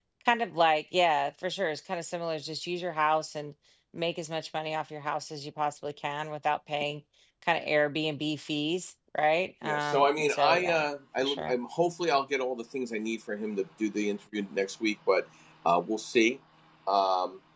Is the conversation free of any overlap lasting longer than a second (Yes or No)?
No